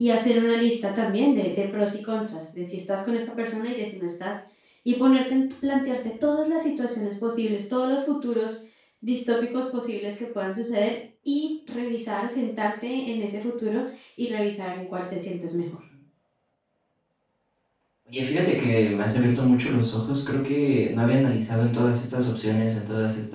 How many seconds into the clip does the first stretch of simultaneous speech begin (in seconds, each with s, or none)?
none